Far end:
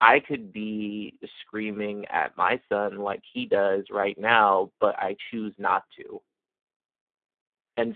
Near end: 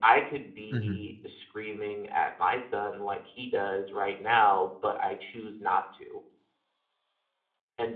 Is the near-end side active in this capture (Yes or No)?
Yes